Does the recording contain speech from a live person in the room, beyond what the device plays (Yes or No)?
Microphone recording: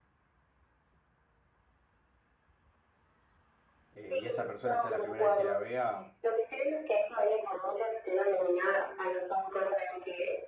Yes